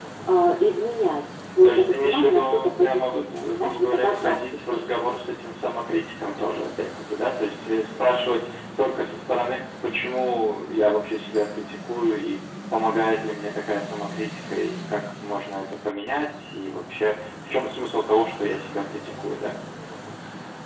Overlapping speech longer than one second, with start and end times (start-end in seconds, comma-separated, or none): 1.6-4.4